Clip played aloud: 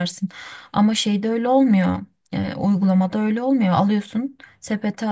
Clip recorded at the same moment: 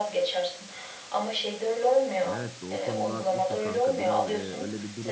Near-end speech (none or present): present